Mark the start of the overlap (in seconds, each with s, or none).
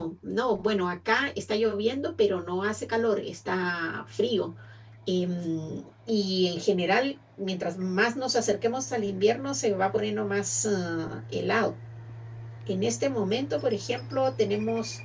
none